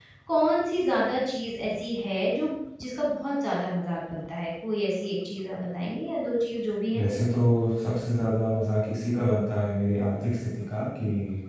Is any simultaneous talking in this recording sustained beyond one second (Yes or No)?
No